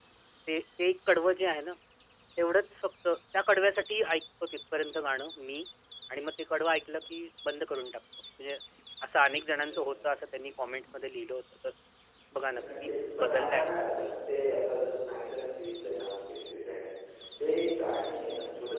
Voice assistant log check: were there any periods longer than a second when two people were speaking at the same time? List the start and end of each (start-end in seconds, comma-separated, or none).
12.5-14.1